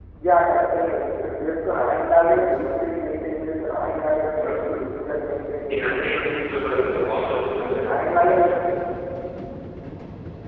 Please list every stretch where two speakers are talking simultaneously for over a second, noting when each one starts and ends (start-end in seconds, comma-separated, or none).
none